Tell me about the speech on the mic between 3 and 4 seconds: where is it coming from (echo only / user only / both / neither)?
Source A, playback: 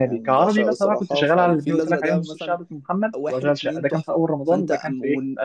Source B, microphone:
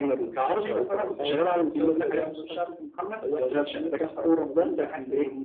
echo only